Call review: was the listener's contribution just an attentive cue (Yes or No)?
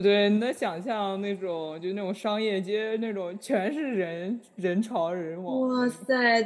No